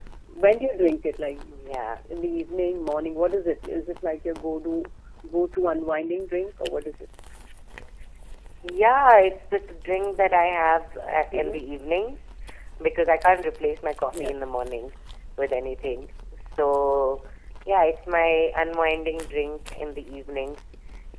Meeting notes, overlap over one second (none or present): none